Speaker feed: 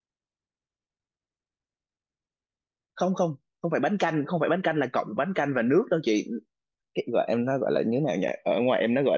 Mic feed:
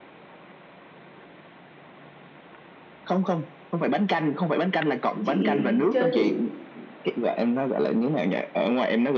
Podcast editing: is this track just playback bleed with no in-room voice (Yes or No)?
No